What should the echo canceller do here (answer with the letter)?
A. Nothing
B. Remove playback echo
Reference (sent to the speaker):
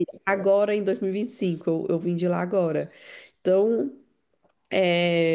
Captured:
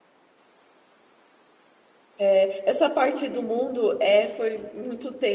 A